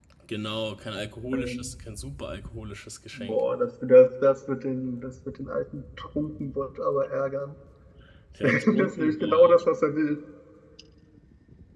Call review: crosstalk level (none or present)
present